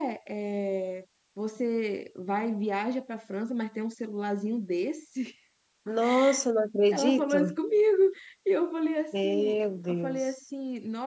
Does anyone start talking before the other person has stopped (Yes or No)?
Yes